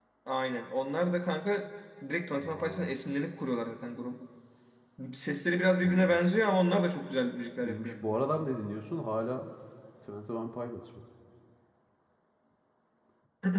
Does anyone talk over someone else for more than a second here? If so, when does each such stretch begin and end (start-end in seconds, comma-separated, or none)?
none